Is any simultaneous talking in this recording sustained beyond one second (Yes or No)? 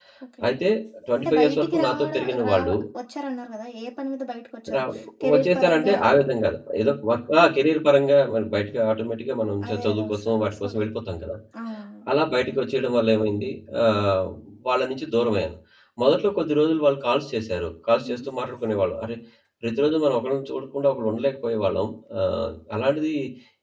Yes